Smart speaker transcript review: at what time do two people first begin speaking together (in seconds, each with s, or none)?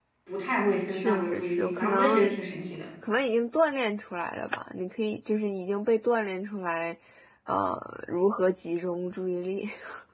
0.9 s